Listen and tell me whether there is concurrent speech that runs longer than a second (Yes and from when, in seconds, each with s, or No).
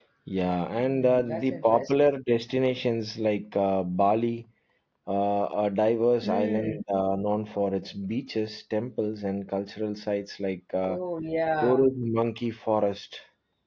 Yes, from 0.8 s